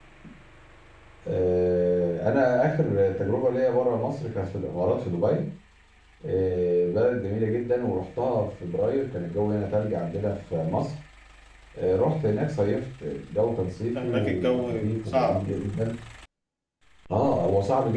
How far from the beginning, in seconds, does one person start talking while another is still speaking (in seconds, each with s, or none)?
14.0 s